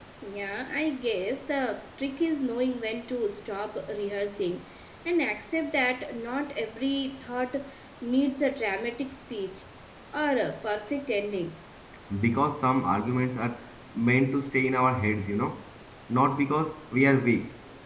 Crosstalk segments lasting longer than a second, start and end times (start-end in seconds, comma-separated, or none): none